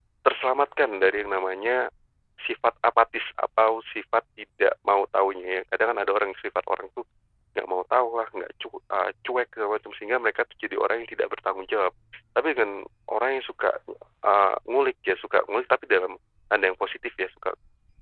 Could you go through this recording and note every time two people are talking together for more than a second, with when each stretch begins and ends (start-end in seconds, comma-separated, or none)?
none